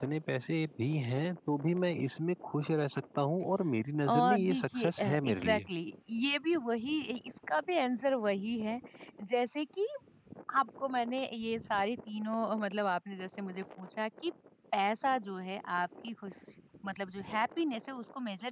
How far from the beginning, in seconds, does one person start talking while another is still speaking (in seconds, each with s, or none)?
4.0 s